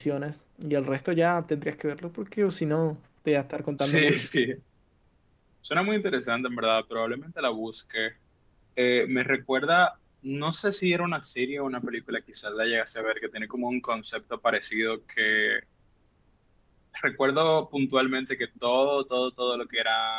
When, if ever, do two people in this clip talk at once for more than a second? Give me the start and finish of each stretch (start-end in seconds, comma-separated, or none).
none